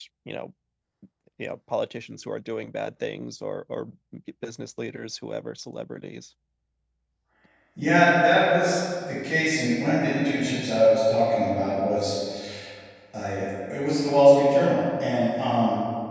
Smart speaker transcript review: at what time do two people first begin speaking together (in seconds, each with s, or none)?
none